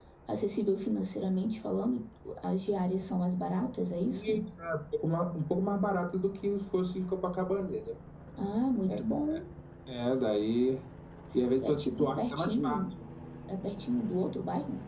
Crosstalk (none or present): present